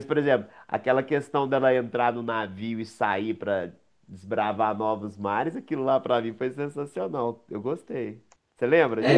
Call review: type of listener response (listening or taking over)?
taking over